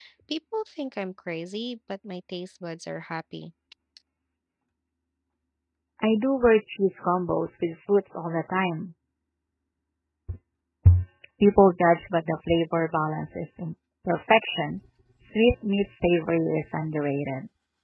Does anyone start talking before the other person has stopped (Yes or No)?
No